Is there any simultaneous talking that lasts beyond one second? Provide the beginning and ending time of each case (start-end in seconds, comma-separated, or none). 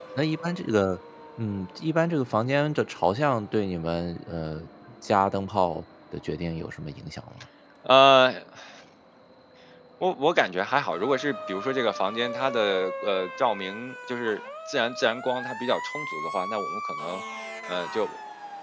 none